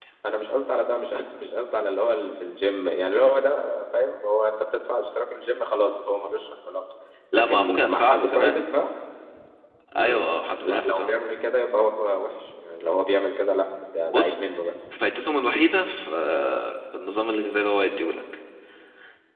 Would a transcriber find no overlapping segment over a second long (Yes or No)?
No